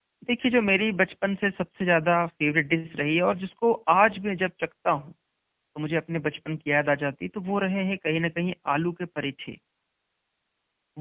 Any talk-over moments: No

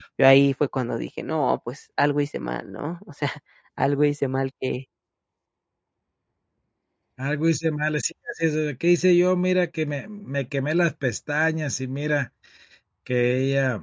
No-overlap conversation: Yes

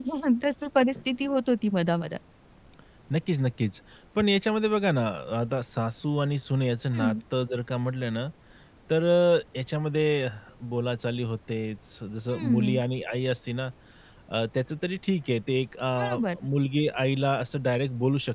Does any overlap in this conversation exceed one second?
No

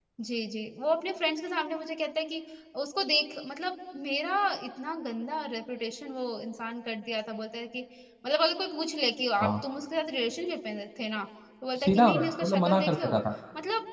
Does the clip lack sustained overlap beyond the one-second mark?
No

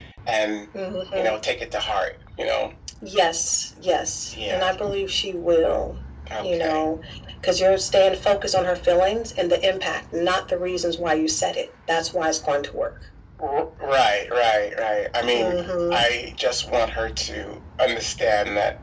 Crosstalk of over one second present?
No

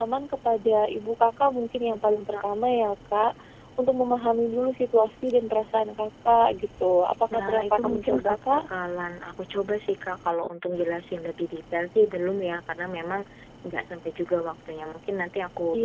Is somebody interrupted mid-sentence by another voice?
Yes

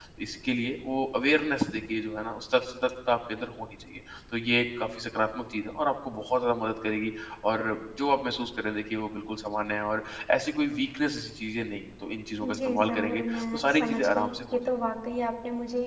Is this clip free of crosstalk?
No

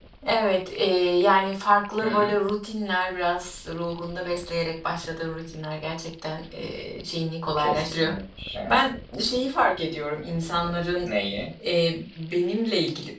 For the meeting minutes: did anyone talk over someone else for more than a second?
No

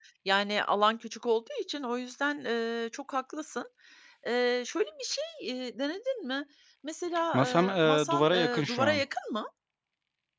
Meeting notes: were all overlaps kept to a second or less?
No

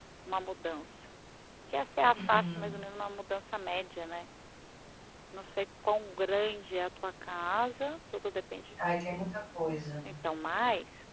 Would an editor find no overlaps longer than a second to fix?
Yes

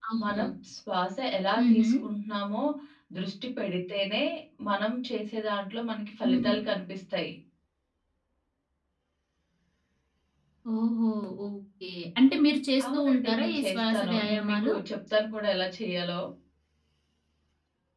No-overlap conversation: No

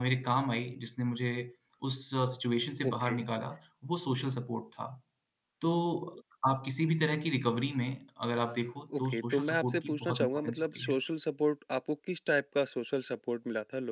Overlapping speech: Yes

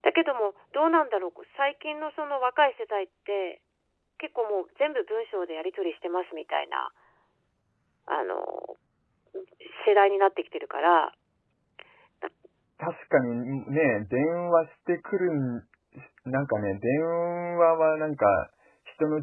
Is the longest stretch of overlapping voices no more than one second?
Yes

